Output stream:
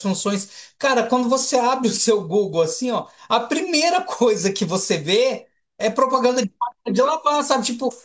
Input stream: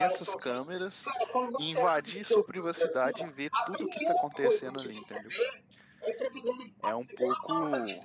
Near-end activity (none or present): present